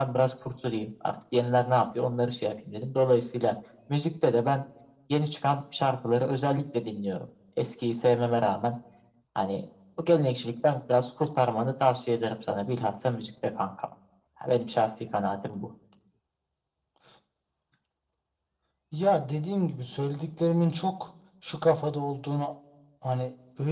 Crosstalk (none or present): none